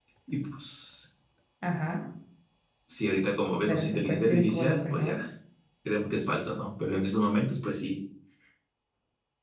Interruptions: present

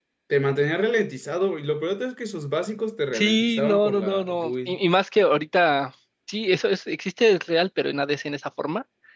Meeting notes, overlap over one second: present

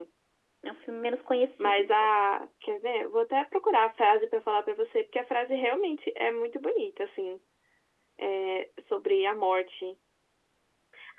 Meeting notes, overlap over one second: none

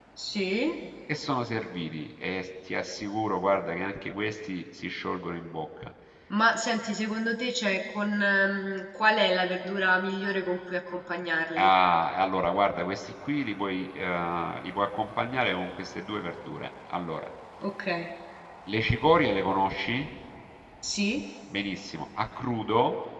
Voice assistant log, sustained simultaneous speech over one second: none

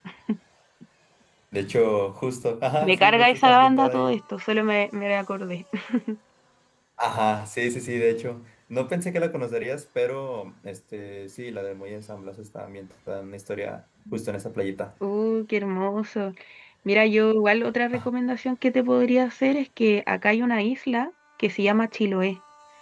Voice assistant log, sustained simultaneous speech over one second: present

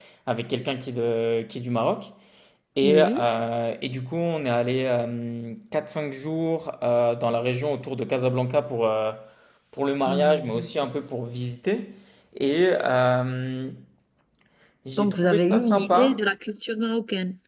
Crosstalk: present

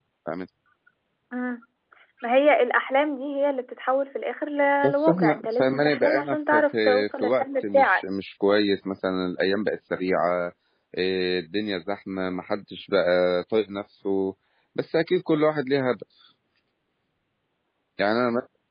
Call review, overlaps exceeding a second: present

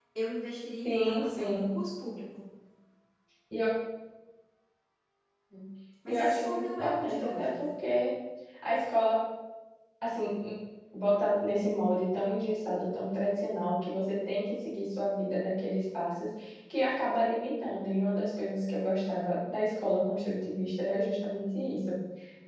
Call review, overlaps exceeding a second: present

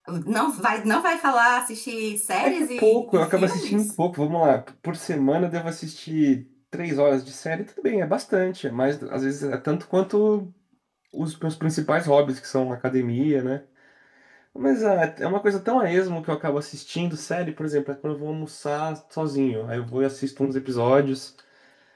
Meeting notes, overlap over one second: present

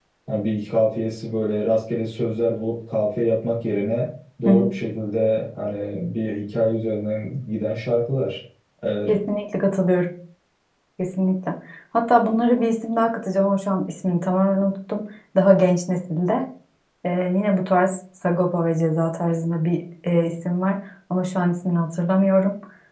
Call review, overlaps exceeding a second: none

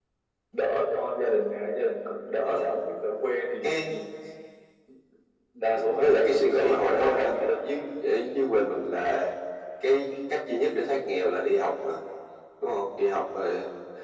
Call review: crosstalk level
present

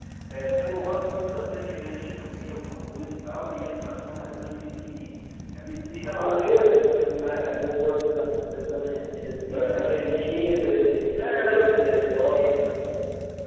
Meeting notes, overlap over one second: present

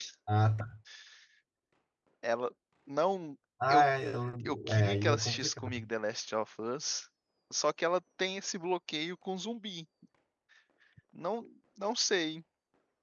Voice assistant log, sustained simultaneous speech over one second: present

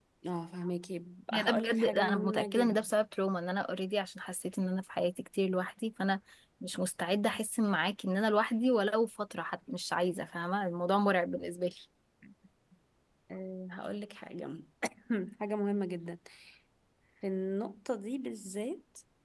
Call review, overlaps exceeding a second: present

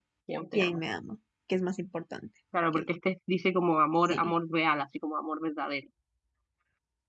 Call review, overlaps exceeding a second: none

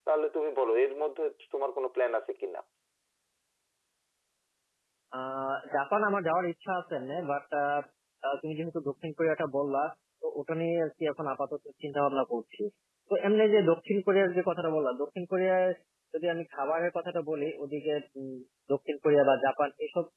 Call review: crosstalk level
none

